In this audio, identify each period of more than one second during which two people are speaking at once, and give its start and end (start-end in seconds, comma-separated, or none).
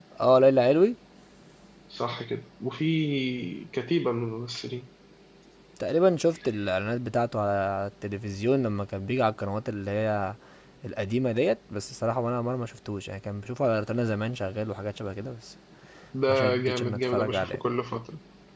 16.3-17.6